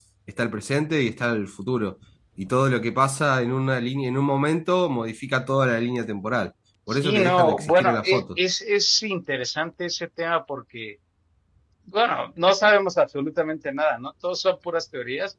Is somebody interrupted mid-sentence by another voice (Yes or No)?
Yes